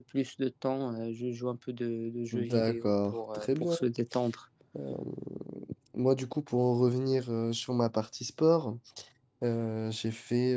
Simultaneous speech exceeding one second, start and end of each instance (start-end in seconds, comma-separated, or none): 2.3-3.8